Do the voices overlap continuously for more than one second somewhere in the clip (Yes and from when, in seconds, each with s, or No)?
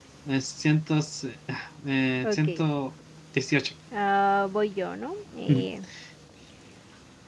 No